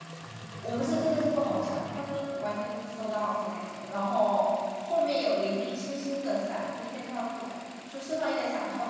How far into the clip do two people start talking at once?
0.6 s

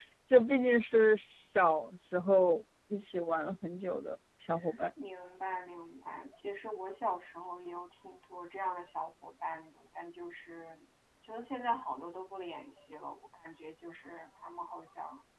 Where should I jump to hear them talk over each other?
none

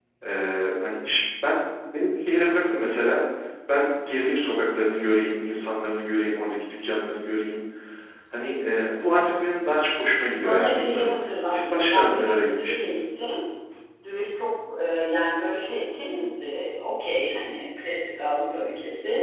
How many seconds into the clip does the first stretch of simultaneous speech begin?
10.3 s

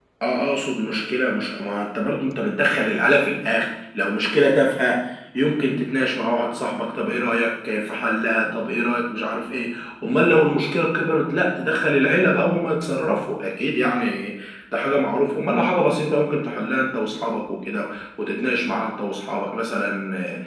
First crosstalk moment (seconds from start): none

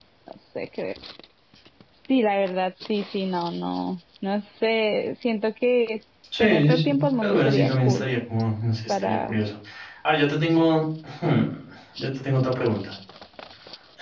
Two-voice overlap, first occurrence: 6.4 s

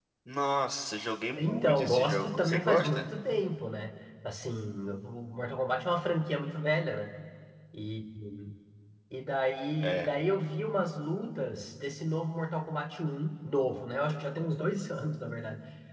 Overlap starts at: 1.4 s

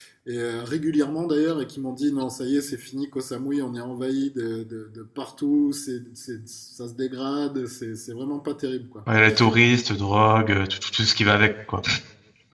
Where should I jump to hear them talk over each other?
none

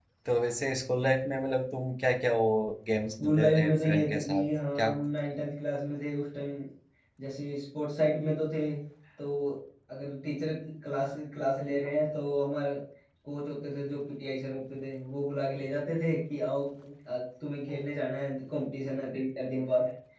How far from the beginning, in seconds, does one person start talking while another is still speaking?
3.2 s

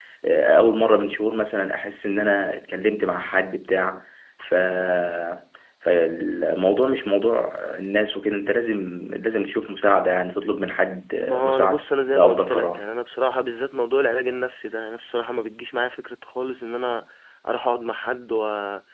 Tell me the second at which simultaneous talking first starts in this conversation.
11.2 s

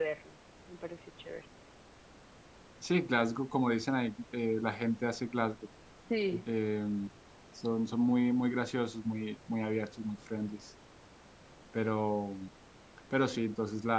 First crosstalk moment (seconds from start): none

